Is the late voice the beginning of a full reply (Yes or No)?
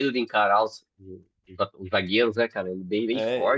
Yes